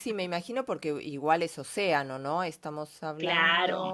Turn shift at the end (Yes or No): No